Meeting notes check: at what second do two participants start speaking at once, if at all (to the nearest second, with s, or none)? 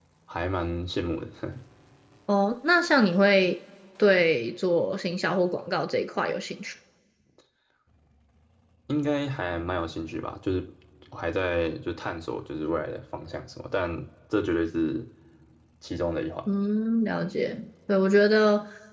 none